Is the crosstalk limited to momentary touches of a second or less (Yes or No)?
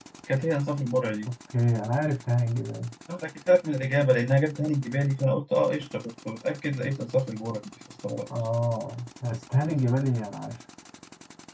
Yes